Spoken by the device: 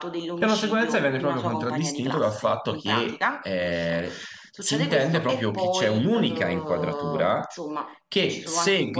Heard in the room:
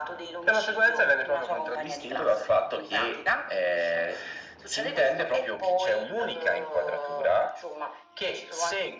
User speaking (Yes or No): No